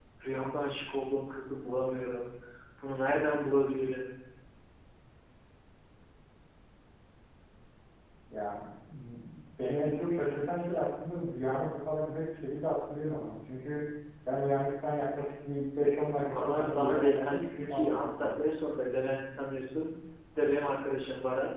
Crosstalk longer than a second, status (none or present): present